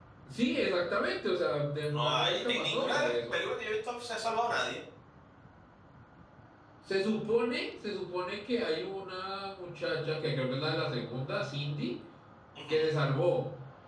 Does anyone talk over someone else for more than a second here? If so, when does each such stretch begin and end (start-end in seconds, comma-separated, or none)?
1.9-3.4